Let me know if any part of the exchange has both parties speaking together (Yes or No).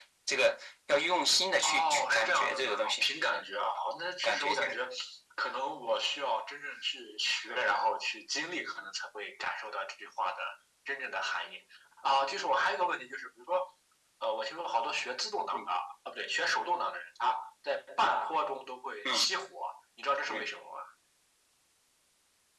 Yes